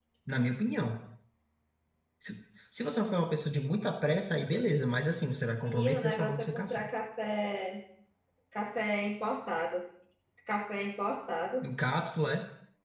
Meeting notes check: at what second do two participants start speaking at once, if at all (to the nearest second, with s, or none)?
6 s